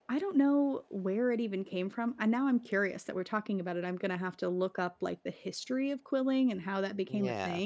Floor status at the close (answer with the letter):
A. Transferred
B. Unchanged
B